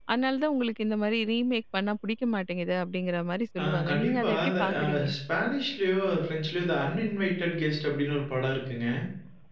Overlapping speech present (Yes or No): Yes